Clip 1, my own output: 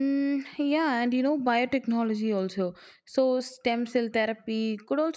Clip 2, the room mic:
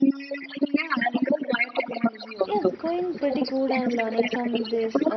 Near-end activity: present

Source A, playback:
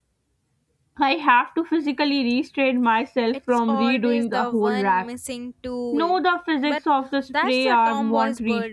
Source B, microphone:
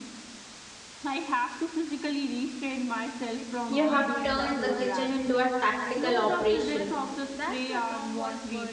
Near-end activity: present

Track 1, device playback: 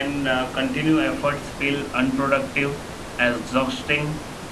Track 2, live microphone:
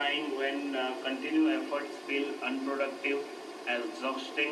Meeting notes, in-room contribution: none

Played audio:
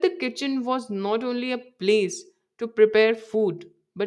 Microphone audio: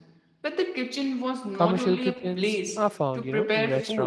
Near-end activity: present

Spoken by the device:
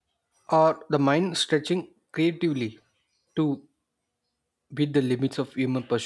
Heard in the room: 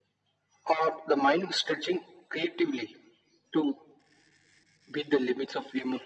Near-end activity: none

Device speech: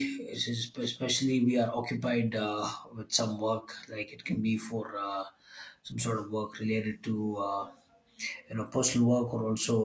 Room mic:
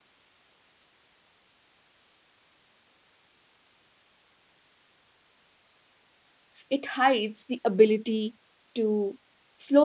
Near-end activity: present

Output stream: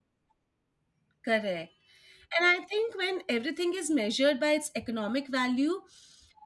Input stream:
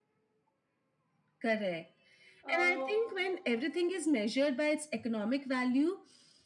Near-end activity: present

